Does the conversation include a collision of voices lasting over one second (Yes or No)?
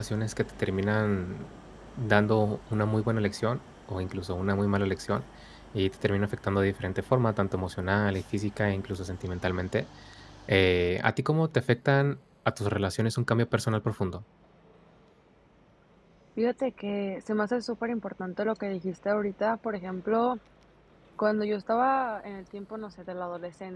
No